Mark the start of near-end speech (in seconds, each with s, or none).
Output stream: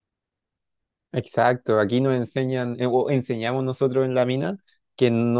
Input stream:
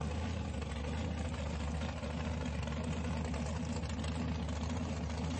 none